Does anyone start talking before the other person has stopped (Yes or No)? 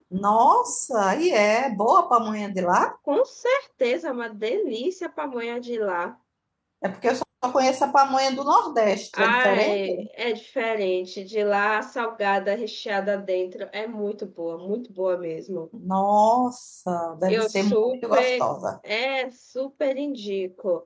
Yes